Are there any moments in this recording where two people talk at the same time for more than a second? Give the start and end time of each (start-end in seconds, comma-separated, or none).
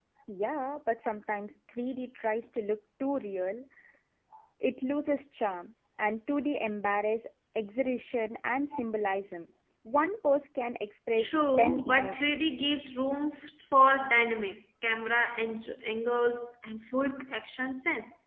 11.2-12.6